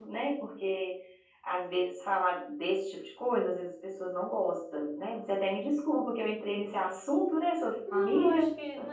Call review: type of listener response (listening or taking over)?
taking over